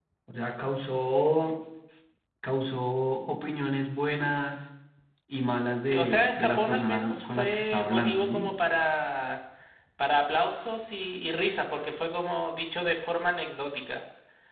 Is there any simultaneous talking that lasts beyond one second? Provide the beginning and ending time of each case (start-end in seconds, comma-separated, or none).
5.8-8.5